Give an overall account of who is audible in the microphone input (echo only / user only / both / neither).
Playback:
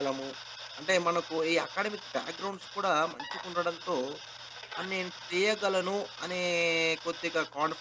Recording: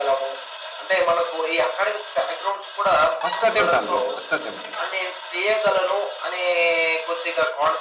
both